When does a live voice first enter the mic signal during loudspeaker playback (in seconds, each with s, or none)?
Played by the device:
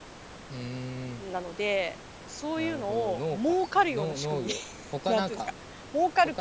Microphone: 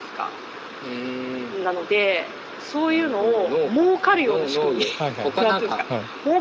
5.0 s